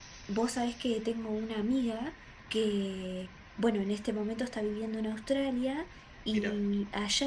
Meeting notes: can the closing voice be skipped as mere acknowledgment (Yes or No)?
Yes